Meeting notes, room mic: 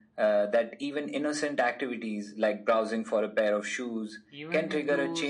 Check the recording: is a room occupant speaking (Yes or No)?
Yes